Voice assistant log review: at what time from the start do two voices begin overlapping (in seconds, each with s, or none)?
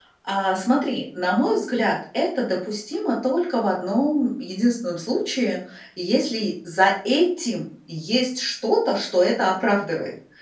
none